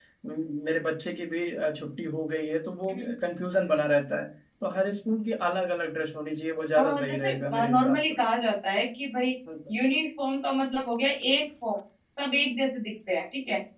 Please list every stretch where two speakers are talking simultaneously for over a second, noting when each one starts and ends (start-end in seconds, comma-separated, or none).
6.8-8.1